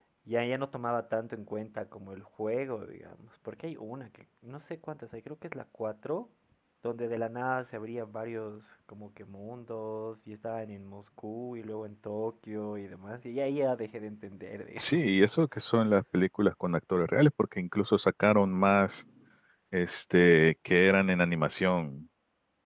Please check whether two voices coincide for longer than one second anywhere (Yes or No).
No